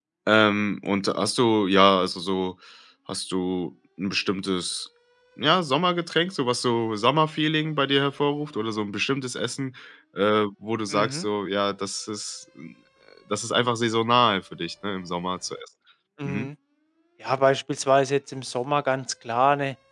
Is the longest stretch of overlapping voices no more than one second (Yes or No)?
Yes